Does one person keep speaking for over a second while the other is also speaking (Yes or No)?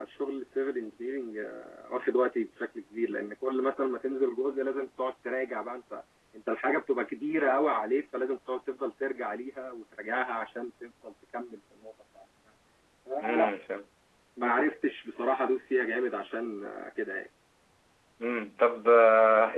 No